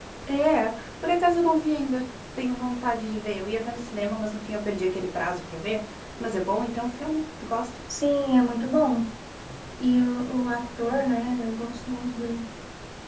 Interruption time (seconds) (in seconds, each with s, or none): none